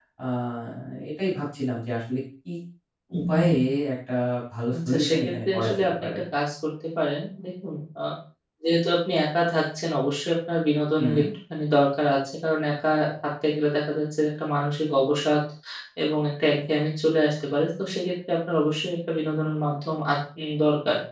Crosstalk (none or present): present